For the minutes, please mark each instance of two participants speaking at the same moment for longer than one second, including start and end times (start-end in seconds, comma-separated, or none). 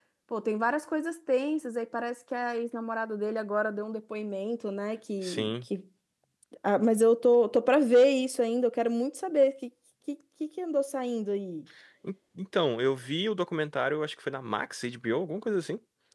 none